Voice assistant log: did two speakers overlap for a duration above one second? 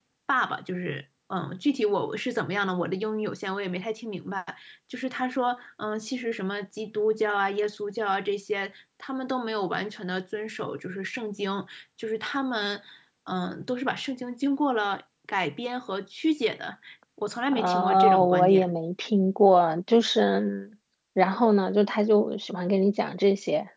Yes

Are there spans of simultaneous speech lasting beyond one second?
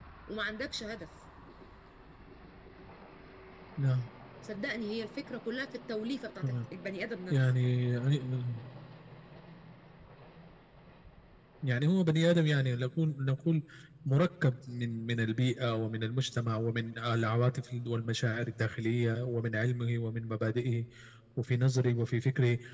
No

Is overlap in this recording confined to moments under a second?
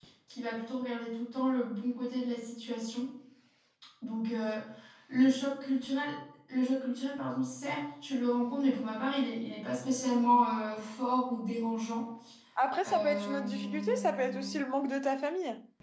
No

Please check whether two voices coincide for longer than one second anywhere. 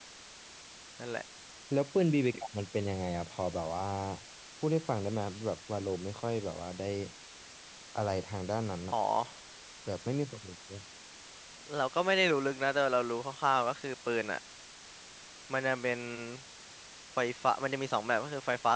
No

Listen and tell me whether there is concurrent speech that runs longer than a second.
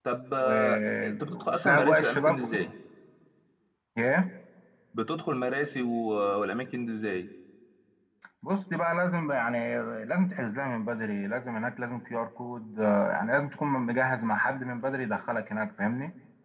Yes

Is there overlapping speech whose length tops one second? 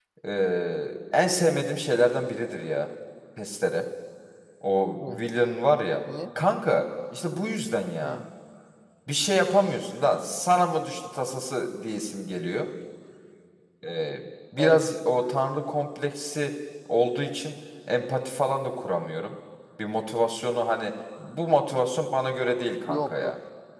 No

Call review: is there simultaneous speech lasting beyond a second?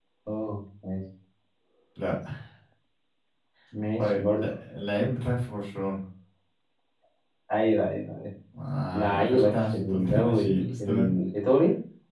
Yes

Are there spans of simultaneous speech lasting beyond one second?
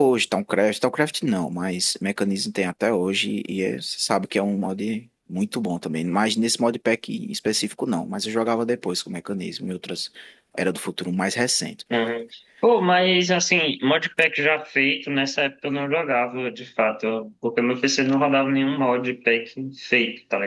No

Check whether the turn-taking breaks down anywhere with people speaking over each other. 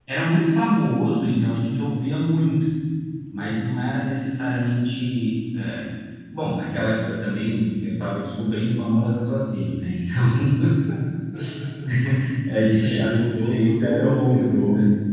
Yes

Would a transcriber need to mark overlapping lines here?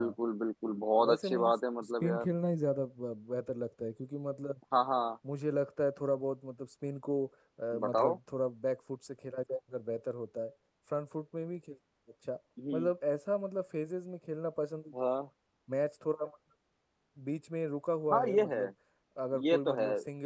Yes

